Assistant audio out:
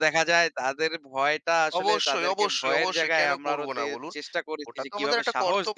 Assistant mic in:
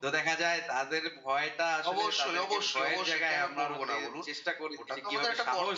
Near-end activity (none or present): none